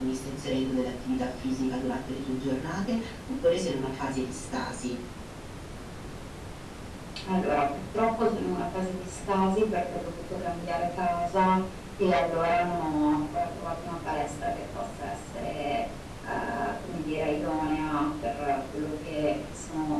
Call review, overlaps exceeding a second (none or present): none